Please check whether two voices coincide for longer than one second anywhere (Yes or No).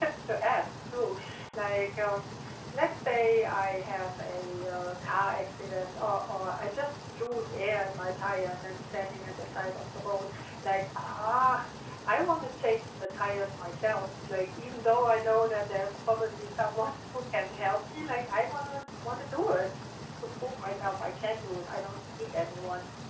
No